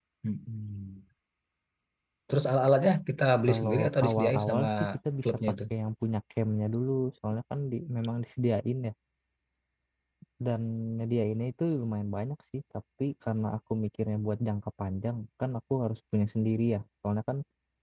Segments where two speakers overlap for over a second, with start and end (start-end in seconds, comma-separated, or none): 3.5-4.7